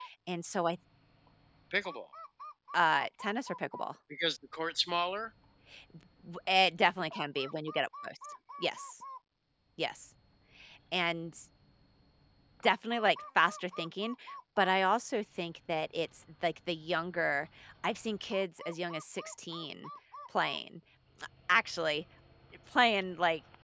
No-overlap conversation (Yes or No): Yes